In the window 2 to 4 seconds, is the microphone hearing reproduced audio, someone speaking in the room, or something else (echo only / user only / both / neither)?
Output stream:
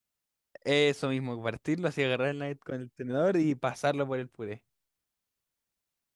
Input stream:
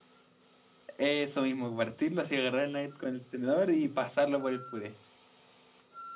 echo only